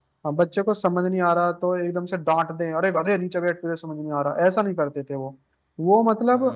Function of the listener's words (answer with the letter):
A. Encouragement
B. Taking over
B